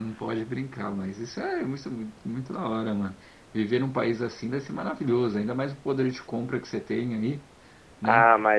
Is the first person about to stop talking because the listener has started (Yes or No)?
Yes